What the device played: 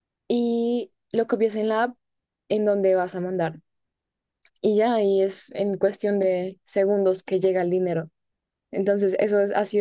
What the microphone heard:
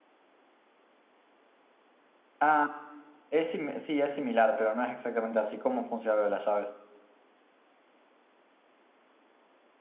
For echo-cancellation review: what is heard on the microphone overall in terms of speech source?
user only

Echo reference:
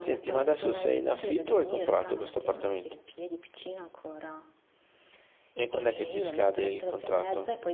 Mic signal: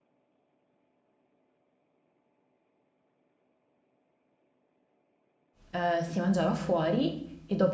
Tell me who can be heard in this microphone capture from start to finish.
user only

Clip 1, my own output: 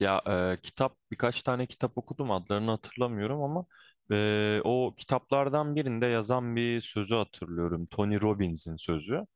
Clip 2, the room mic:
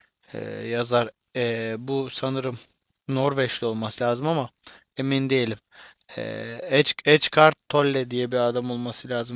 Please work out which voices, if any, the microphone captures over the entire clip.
user only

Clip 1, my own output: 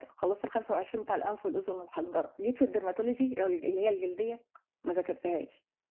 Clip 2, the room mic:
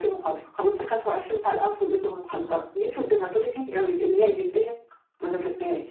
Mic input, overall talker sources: echo only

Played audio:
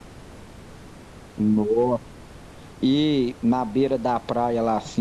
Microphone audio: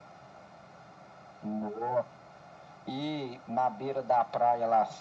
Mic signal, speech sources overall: echo only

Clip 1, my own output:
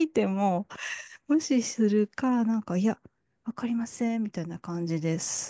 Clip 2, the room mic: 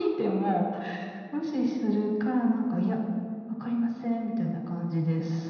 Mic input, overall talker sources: echo only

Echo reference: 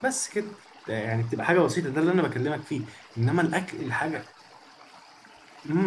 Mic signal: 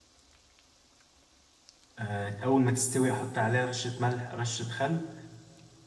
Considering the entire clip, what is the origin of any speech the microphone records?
user only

